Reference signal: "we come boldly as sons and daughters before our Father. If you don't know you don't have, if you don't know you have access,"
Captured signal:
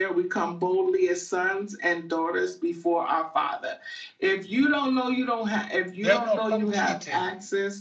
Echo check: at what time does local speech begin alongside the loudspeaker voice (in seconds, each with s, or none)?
6.0 s